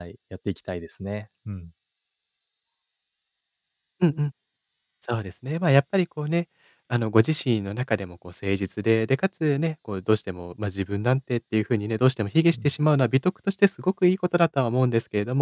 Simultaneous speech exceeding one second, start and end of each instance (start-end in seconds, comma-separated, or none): none